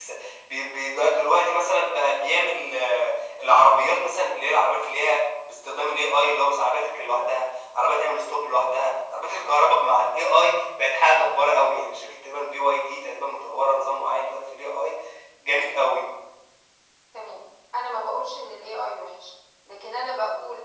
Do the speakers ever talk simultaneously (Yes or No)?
No